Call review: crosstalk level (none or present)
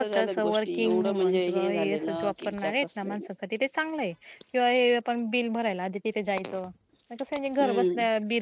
present